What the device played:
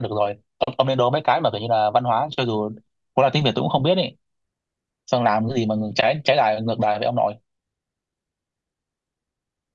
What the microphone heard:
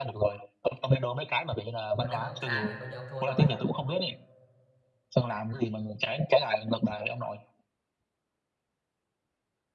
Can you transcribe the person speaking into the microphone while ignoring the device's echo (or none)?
còn nếu mà ông sai thì coi như ông thua tôi